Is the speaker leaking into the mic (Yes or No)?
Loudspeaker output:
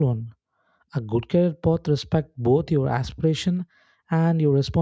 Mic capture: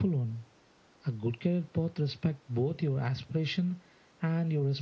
Yes